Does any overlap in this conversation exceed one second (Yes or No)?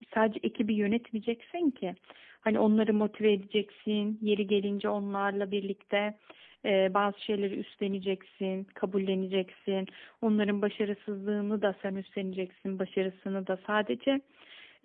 No